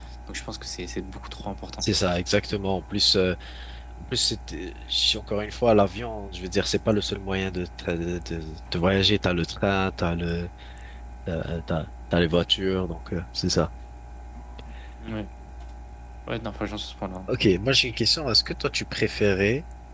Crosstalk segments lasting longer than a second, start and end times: none

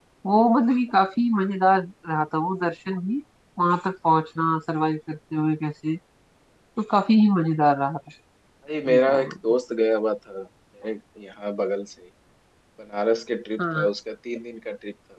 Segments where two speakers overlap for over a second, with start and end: none

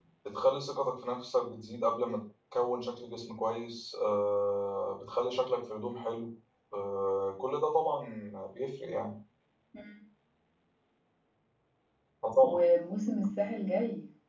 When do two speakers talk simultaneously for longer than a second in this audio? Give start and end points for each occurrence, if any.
none

